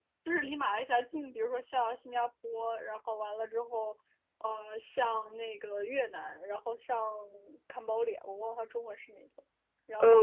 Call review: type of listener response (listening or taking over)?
taking over